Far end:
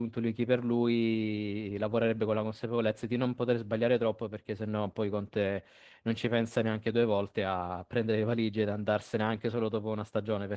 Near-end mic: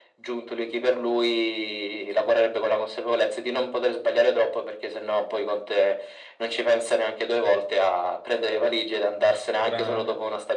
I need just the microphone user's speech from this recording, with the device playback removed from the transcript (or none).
grandi,